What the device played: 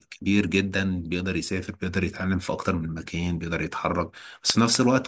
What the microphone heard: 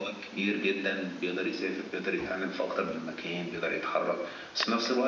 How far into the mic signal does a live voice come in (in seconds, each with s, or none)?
none